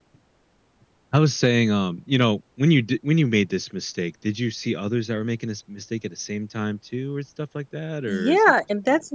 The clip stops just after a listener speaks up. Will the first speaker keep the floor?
No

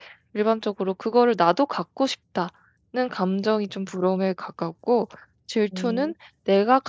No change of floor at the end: Yes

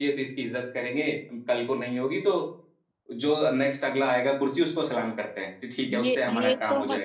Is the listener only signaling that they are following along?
No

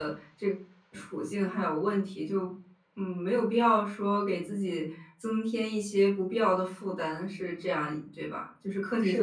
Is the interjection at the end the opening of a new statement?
Yes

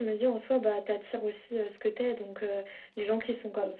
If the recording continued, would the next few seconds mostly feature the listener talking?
No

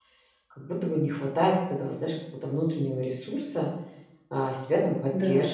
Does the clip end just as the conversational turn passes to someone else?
No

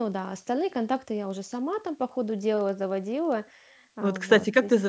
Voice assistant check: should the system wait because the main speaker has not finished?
No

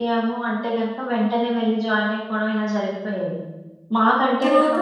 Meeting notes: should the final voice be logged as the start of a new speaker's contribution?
No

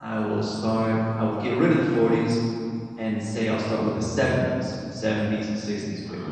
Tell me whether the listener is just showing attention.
Yes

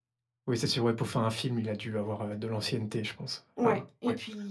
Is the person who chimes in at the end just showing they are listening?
No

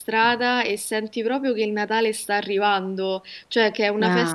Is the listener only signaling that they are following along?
Yes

